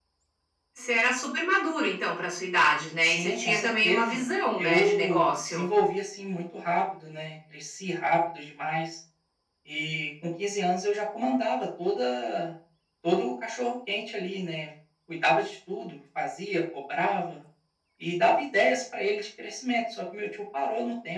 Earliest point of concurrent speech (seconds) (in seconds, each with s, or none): 3.0 s